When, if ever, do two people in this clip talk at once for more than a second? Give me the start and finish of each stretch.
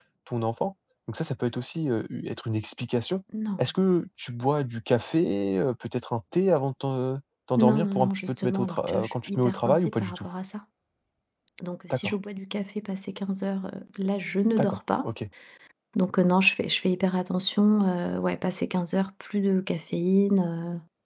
7.6-10.3

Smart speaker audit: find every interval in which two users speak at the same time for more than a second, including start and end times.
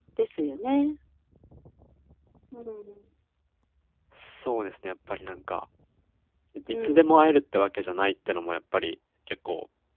none

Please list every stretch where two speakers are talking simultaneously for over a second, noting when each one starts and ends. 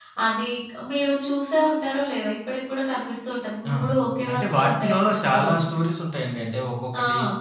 4.3-5.5

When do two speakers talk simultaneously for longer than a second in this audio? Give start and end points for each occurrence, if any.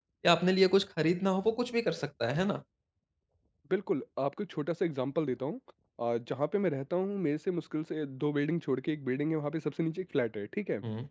none

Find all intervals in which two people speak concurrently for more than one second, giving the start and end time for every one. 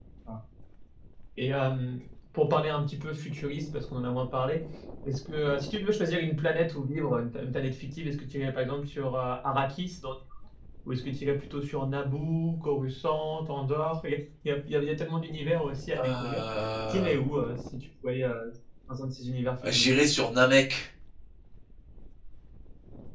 none

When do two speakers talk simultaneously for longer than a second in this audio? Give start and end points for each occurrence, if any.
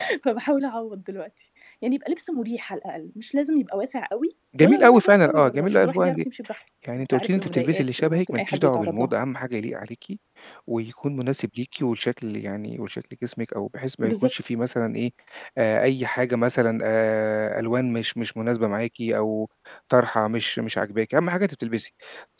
4.6-6.2, 7.1-9.1

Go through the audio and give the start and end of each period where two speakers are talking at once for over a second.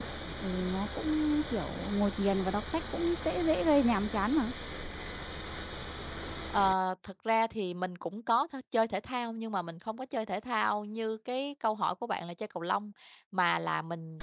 none

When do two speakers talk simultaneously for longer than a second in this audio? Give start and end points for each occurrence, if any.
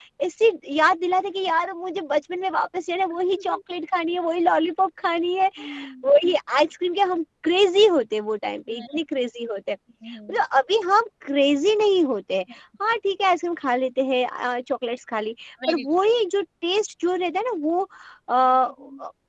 none

